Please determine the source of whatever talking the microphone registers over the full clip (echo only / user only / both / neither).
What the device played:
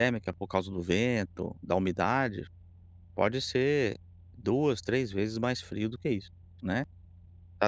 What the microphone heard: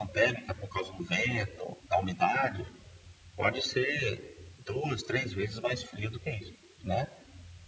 echo only